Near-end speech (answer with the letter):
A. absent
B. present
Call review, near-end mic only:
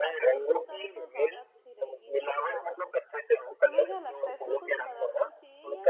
B